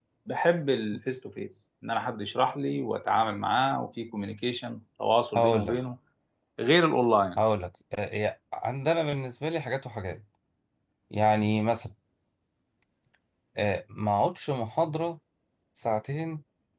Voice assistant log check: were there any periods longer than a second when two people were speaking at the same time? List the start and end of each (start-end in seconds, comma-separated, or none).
none